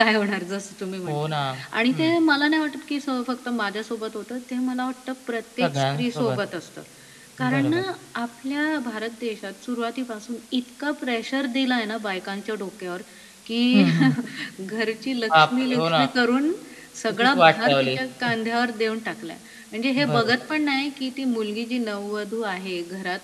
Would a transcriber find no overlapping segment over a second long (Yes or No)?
No